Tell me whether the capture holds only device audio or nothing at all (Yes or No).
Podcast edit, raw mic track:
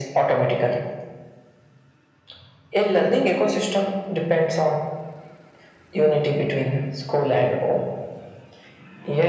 Yes